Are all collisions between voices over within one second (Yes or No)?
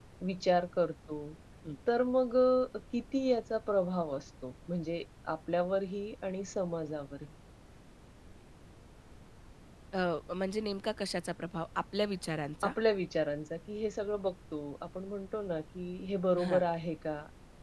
Yes